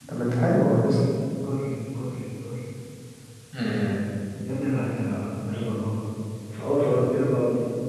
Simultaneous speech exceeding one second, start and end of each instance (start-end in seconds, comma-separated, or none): none